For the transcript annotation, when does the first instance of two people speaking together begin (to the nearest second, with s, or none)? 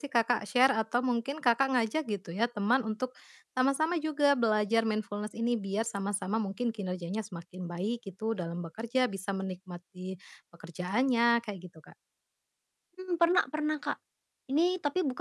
none